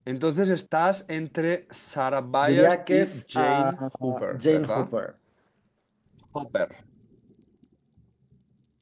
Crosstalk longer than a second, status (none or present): present